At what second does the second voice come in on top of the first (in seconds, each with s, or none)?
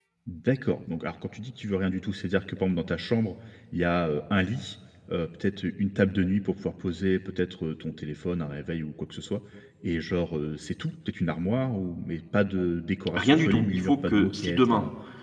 13.2 s